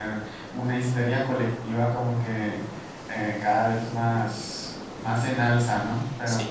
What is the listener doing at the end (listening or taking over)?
listening